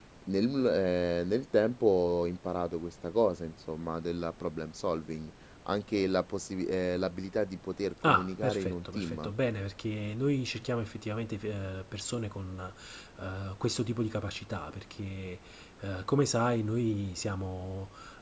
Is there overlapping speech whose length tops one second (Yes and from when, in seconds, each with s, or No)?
Yes, from 8.0 s